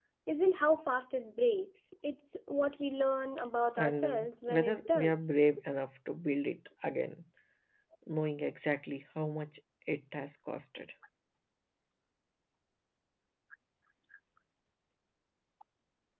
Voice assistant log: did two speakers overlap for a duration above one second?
Yes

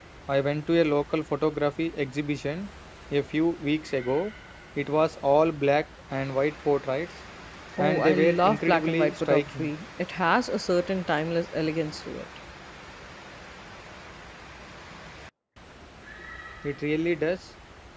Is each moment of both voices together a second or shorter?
No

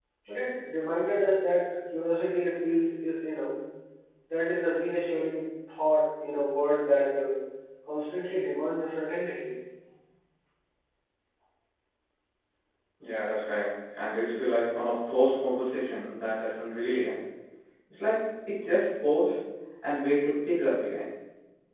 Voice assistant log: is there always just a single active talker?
Yes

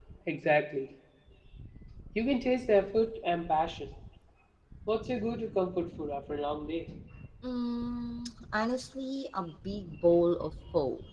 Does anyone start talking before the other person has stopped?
No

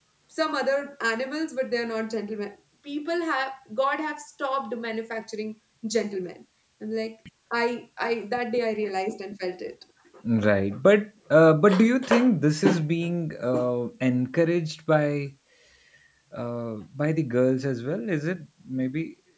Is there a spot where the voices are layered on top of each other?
No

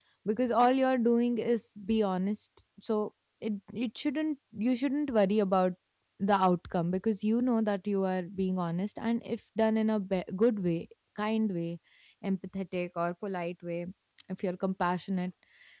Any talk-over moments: No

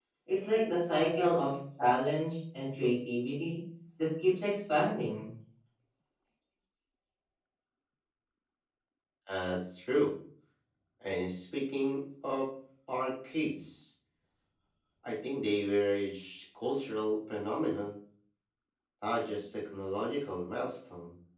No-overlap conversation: Yes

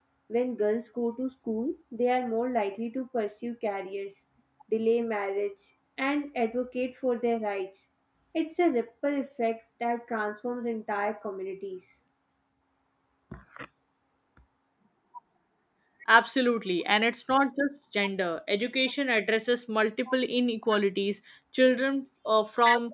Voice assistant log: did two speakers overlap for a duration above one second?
No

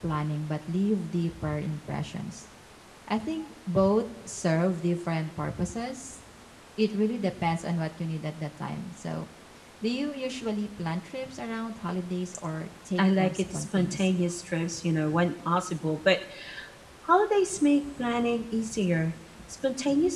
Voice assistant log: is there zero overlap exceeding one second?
No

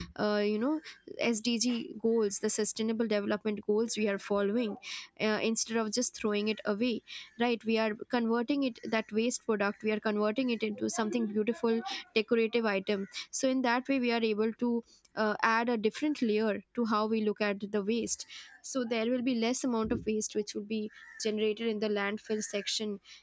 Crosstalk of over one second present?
No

